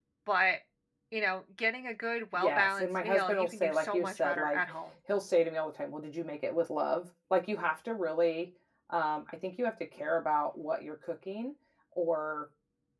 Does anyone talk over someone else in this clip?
Yes, from 2.3 s

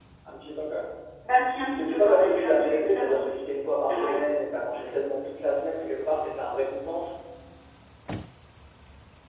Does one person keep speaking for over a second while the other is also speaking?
Yes, from 1.7 s

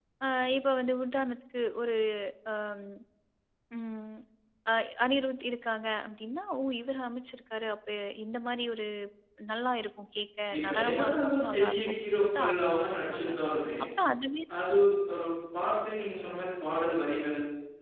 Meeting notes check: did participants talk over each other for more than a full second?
Yes, from 10.5 s

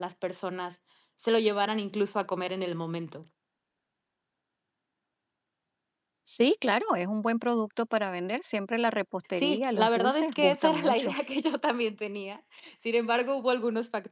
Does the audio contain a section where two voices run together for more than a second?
Yes, from 9.4 s

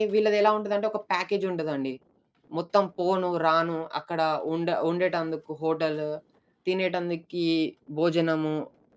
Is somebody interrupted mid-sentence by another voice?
No

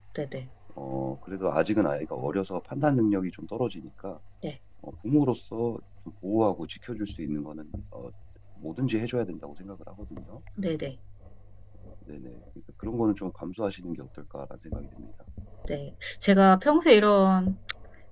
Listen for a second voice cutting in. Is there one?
No

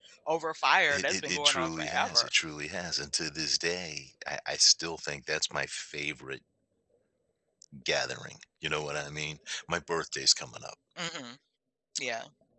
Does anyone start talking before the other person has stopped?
Yes, from 0.9 s

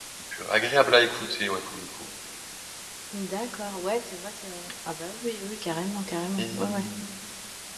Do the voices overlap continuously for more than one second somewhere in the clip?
No

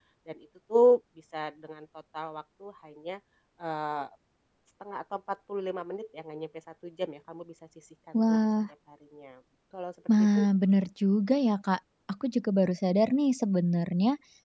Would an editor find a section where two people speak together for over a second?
No

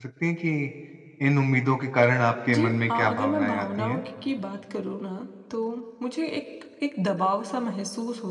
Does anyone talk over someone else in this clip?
Yes, from 2.5 s

